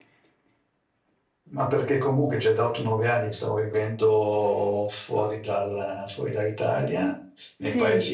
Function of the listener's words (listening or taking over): listening